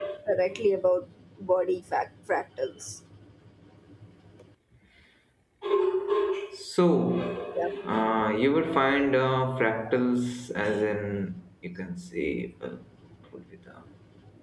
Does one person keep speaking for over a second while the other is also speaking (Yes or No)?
No